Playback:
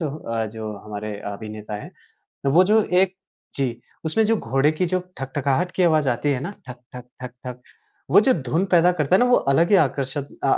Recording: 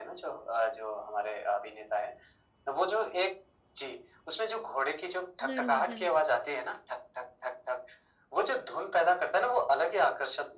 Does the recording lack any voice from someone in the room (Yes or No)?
No